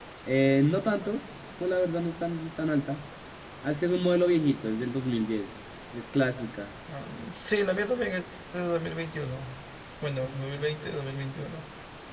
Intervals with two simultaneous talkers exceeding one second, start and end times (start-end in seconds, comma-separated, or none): none